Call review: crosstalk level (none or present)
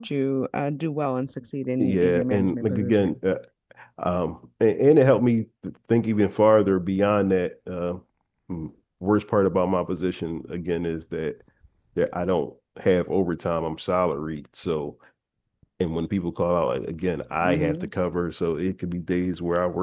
present